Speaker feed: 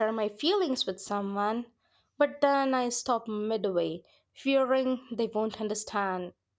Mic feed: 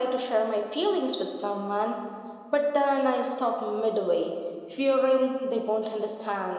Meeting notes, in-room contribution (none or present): none